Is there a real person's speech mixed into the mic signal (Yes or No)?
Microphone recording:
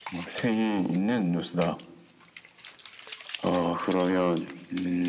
No